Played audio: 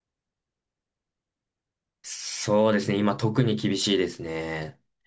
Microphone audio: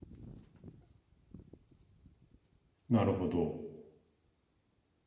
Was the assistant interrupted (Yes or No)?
Yes